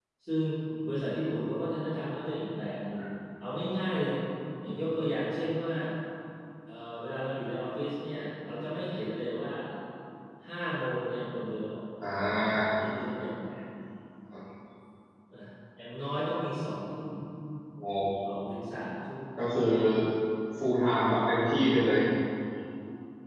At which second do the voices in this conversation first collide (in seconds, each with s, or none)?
none